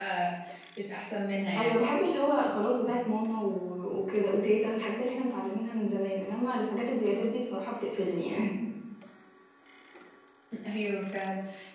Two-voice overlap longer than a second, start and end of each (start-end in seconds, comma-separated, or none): none